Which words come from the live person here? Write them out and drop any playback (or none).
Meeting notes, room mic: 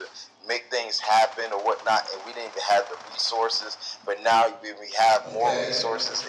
okay?